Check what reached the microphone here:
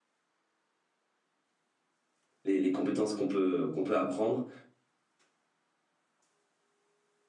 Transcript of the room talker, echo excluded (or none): les, les compétences qu'on peut, qu'on peut apprendre.